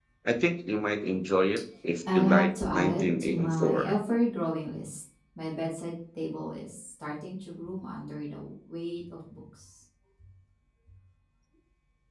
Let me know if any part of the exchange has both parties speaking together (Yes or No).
Yes